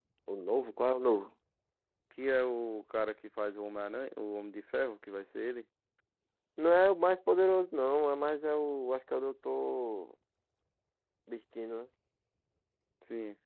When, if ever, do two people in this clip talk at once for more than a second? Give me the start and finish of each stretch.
none

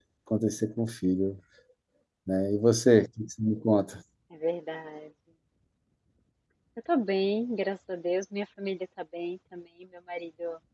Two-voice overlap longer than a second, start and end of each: none

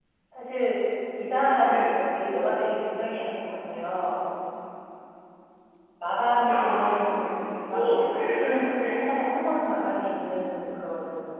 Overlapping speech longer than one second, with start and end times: 6.4-9.0

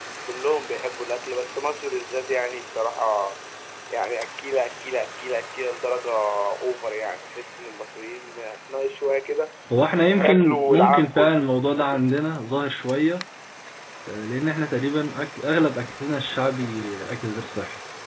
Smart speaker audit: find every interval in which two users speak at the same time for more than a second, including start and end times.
10.1-11.5

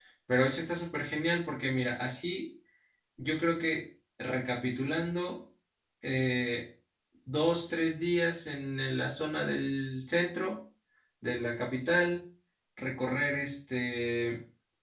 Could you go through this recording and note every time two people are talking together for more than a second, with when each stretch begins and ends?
none

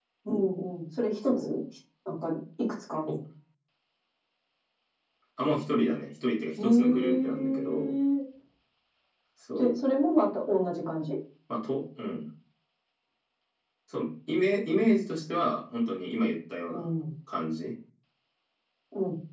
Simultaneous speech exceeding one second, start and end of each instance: 6.6-7.9

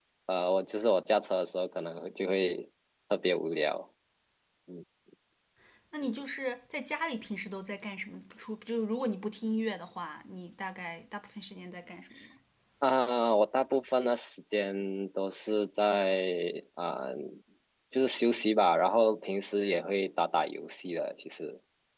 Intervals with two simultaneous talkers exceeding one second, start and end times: none

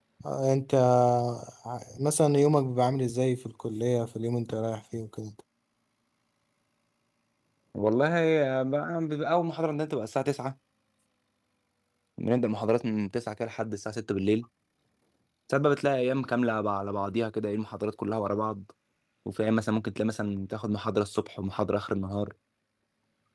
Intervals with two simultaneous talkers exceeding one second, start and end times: none

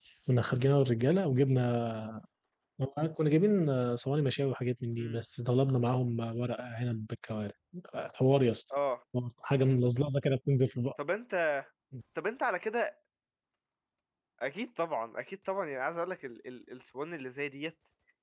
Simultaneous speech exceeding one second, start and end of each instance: none

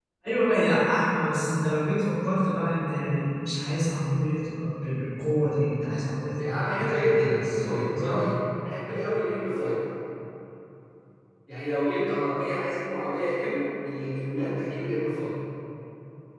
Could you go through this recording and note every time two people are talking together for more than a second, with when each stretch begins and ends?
6.4-8.2

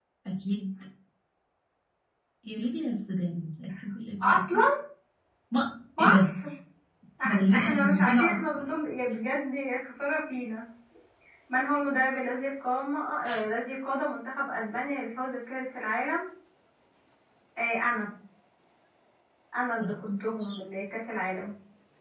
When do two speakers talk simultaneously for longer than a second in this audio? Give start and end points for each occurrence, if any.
7.2-8.6

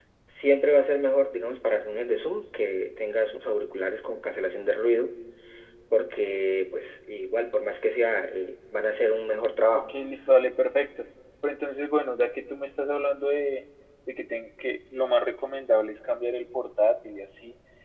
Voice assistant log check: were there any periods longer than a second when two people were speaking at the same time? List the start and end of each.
none

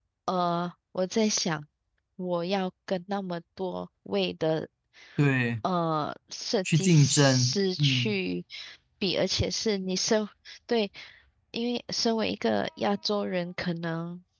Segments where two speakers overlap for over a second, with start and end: 6.7-8.2

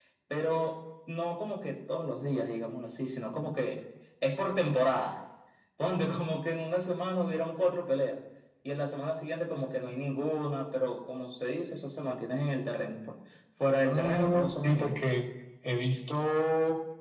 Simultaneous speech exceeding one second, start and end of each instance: 13.8-15.0

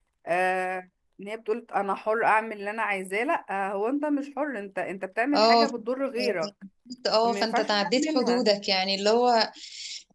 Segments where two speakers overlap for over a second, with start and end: 7.2-8.4

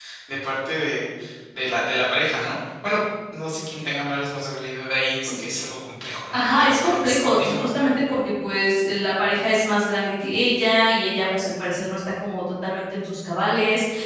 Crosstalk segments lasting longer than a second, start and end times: 6.3-7.7

